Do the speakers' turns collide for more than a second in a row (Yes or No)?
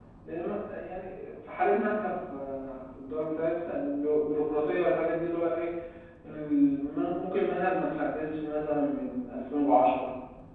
No